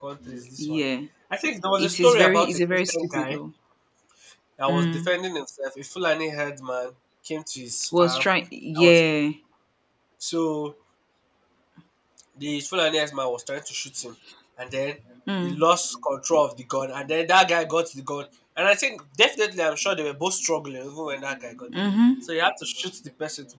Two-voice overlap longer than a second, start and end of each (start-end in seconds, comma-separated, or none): 1.8-3.4